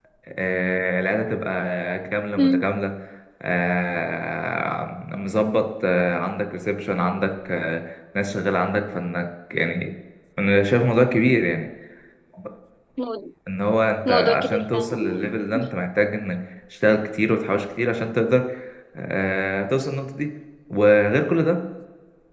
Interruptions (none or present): present